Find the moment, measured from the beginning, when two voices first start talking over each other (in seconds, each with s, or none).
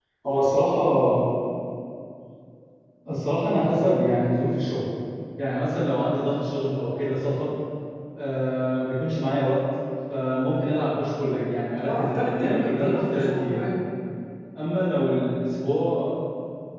11.8 s